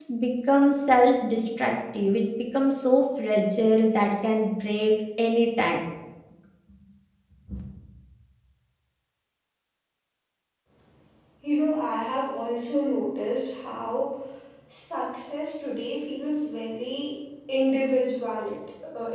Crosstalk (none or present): none